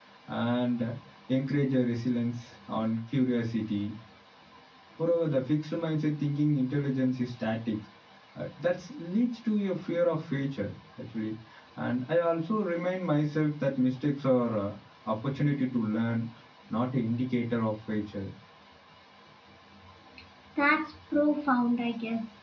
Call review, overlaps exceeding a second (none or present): none